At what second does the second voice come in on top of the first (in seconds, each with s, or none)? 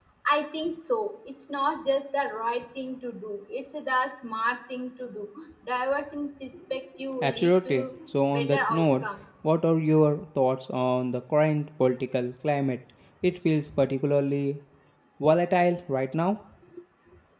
7.2 s